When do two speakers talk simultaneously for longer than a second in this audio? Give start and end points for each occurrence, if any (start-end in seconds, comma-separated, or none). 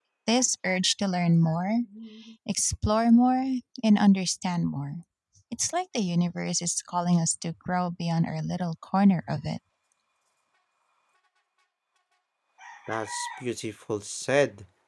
none